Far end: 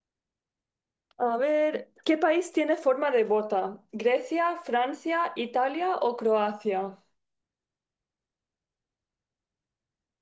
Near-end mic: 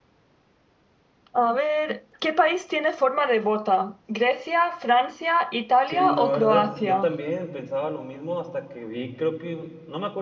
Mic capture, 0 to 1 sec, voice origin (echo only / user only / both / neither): neither